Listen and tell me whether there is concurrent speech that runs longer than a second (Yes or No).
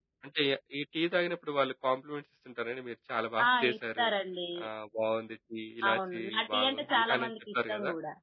Yes